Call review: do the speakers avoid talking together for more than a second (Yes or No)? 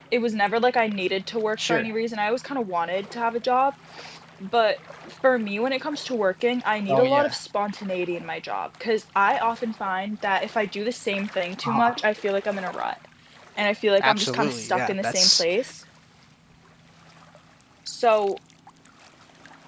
No